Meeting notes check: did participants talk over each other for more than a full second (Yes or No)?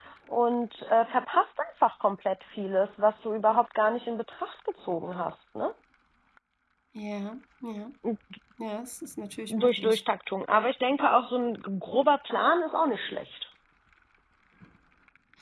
No